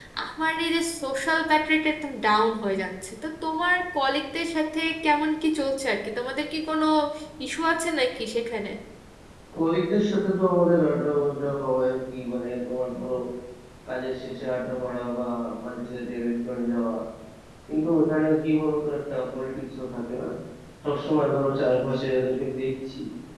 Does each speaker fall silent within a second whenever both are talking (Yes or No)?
Yes